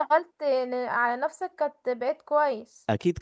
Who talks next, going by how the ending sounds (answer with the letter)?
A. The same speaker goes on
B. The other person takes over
B